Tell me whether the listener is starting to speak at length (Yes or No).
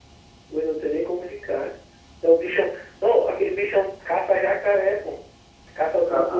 No